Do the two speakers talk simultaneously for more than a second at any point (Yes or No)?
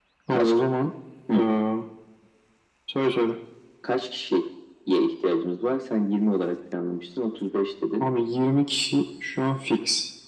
No